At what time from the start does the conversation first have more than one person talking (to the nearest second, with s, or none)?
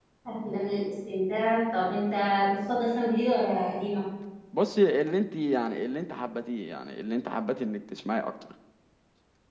none